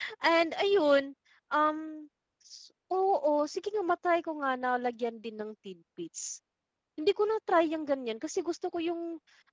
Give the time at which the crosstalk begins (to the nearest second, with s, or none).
none